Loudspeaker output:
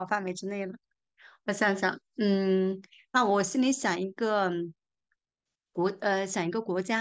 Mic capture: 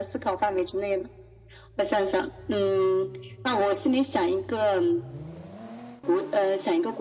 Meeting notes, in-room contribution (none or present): none